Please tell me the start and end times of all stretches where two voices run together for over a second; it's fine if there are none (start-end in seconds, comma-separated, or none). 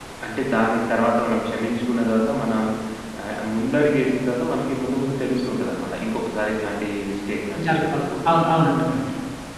7.7-9.0